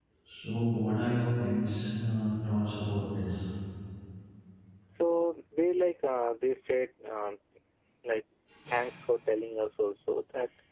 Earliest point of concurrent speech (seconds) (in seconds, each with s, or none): none